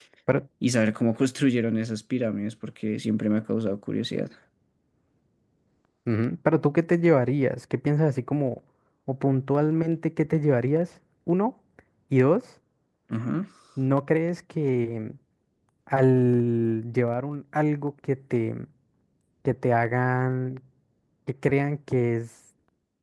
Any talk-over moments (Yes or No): No